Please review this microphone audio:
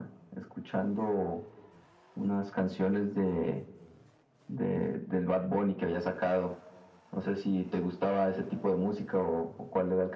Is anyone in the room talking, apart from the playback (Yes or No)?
No